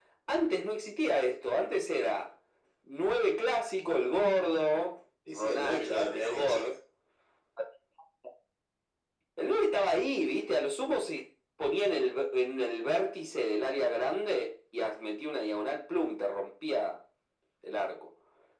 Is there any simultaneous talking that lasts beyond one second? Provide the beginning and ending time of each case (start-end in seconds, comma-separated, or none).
5.3-6.8